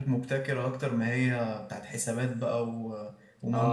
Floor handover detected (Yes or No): Yes